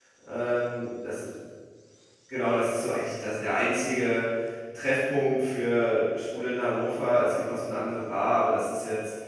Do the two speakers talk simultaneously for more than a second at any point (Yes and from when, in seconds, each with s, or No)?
No